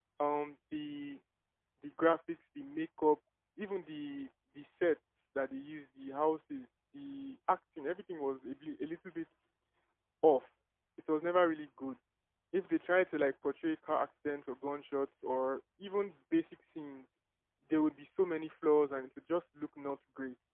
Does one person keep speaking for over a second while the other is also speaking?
No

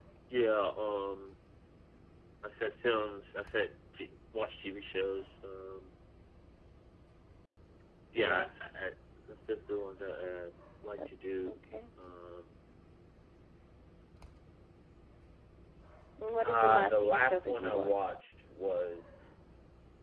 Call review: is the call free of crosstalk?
No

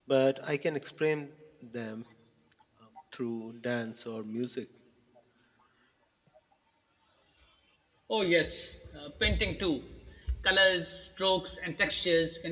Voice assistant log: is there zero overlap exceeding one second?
Yes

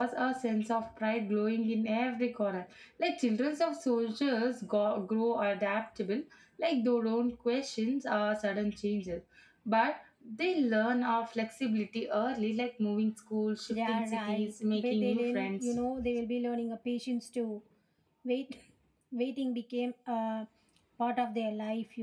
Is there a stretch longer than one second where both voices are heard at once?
Yes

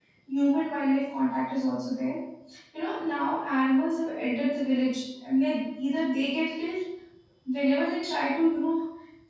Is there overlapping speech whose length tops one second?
No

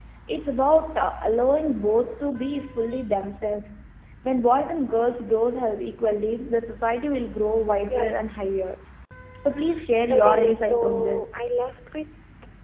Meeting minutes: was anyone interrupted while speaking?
Yes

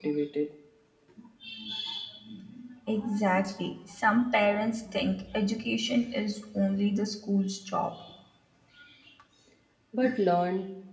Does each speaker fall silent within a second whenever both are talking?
Yes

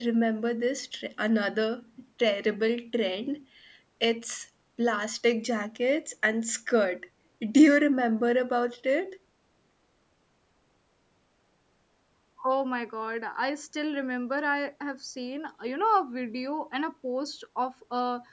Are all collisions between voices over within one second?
Yes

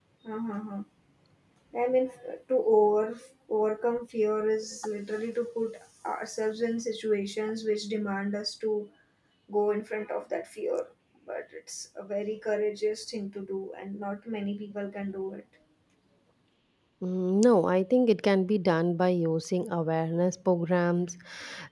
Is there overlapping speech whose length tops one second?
No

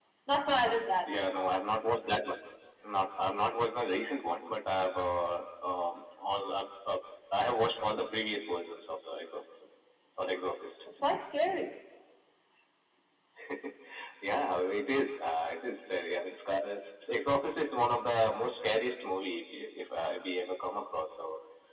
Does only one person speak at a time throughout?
Yes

